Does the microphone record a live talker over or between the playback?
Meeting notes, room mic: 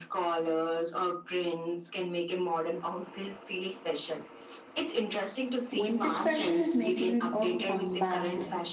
Yes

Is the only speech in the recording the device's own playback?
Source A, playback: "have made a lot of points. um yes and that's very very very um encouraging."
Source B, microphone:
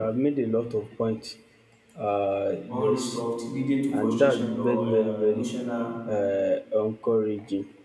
No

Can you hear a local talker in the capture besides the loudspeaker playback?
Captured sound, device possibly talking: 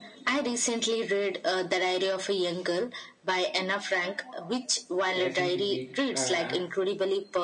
Yes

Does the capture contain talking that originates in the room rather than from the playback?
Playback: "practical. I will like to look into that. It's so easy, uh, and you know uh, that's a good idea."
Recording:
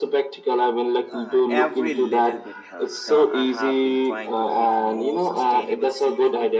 Yes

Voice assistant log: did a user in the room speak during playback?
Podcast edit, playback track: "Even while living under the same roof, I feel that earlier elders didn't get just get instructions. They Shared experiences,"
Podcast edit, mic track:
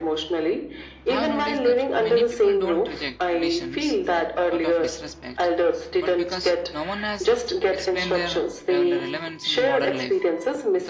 Yes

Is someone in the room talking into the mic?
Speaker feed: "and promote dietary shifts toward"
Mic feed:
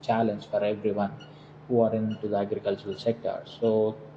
Yes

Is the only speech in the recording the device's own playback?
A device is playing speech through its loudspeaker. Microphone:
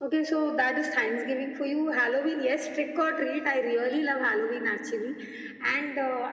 Yes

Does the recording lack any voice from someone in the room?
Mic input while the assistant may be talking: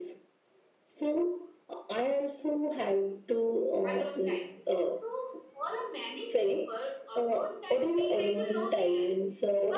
No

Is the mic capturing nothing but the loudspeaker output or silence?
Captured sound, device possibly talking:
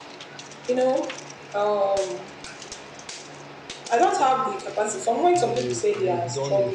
No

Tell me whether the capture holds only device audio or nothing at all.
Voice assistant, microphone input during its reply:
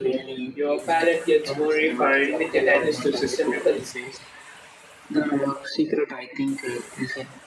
No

